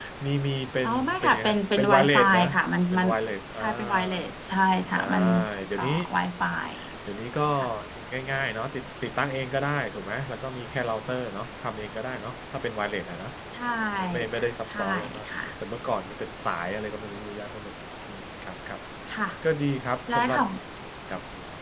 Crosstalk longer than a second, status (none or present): present